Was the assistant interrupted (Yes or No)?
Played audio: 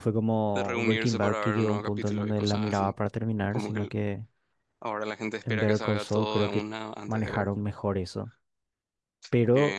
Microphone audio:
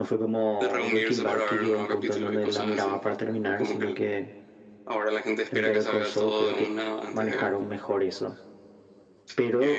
No